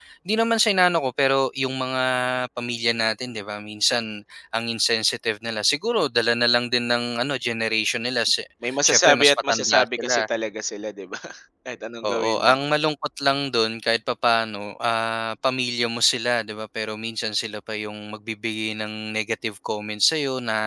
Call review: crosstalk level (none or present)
present